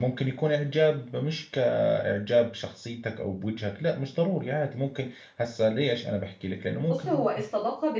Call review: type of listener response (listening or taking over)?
taking over